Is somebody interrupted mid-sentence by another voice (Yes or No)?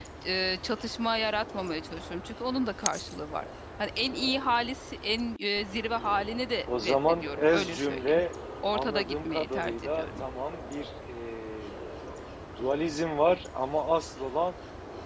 Yes